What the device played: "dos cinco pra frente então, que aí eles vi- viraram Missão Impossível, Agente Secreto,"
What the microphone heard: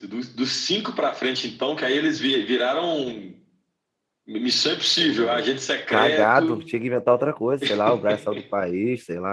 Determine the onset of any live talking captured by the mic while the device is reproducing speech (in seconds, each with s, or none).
5.0 s